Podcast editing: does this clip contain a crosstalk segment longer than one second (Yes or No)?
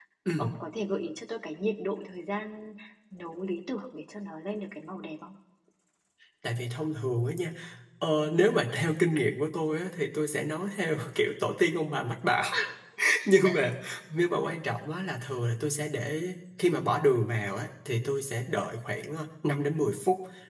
No